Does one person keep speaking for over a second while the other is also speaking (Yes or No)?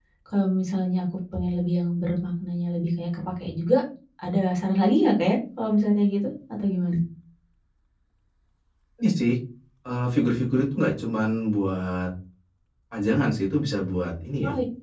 No